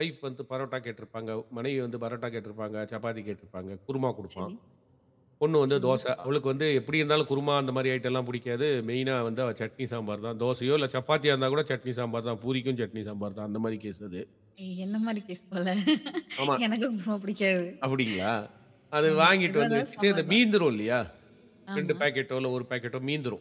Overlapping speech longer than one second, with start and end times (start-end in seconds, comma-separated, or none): 19.1-20.4